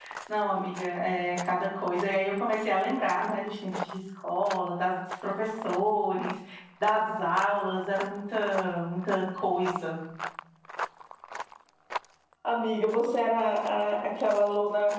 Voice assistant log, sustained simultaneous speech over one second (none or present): none